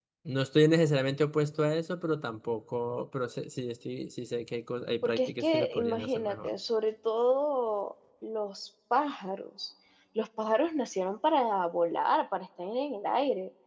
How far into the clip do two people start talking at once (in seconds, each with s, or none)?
5.0 s